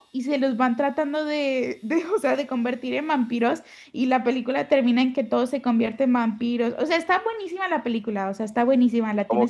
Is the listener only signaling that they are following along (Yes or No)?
No